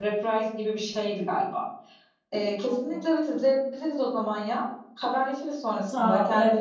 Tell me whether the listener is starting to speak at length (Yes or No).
Yes